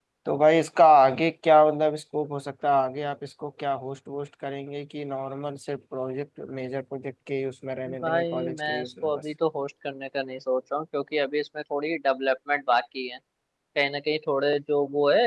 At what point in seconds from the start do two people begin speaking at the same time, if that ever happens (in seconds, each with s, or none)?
7.9 s